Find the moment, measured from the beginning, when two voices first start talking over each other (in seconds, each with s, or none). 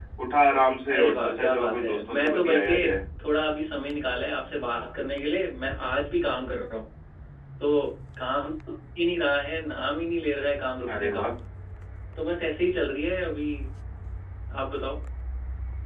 0.9 s